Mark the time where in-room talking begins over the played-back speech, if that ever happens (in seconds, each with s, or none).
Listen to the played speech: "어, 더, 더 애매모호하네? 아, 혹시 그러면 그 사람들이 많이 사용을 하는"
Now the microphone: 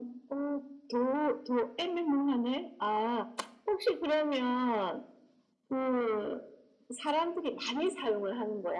none